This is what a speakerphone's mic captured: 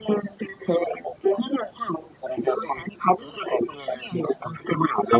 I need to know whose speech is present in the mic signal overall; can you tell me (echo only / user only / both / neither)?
echo only